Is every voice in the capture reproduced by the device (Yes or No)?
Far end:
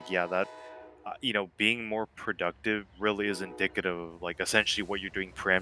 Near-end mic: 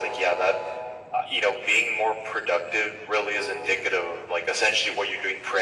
Yes